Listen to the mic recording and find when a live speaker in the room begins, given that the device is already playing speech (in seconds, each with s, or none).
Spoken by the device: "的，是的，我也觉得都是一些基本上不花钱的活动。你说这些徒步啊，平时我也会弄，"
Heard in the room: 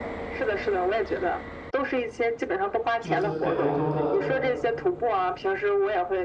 3.0 s